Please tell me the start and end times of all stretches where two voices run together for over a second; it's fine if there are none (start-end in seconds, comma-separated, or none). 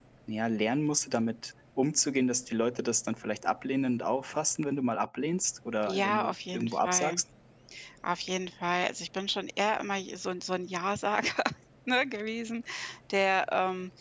5.9-7.2